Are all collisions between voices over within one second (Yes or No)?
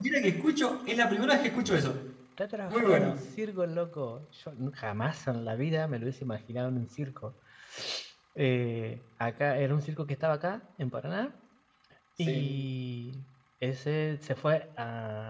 Yes